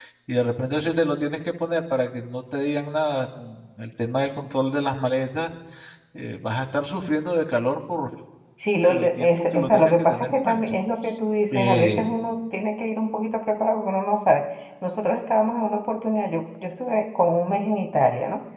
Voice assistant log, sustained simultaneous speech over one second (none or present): present